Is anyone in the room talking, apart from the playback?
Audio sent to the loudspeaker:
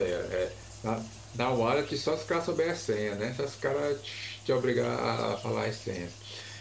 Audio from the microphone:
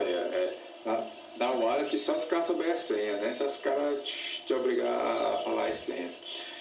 No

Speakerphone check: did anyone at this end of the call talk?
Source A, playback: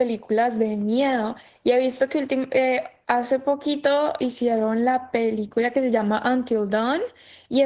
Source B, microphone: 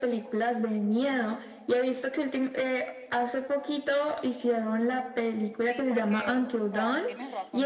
Yes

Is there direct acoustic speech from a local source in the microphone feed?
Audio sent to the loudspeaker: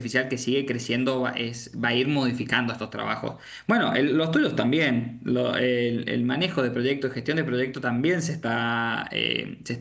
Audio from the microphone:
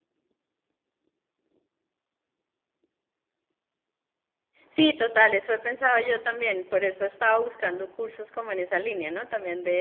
Yes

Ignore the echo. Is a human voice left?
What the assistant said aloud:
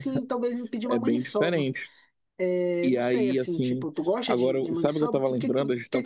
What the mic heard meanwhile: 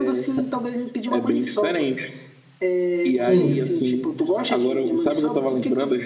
Yes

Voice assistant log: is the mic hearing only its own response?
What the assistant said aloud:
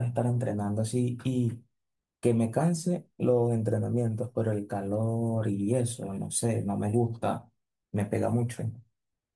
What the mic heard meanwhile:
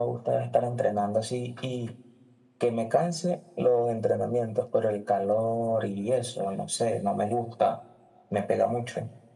Yes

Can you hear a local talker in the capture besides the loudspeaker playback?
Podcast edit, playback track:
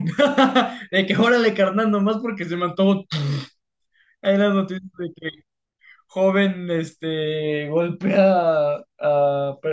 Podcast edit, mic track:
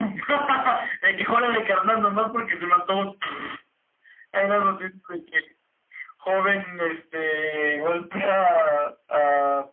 No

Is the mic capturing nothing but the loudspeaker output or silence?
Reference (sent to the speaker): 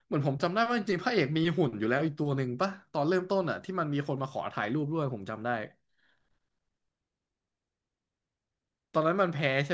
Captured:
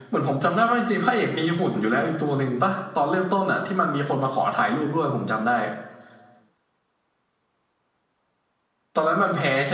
Yes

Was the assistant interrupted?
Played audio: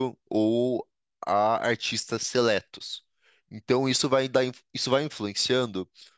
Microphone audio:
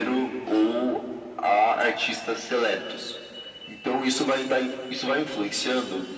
No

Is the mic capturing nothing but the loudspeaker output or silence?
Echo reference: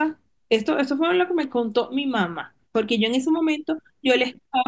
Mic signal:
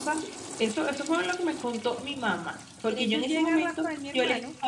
No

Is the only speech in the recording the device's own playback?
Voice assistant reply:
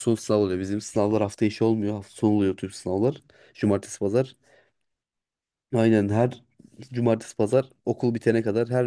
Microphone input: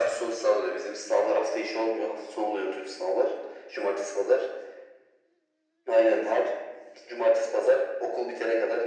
Yes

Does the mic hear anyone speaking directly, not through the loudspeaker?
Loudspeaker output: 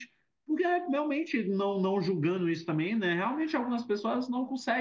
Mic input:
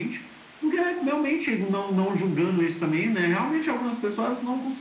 No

